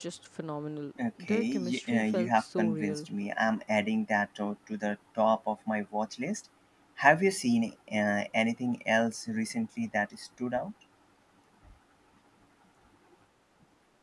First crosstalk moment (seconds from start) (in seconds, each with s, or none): 1.0 s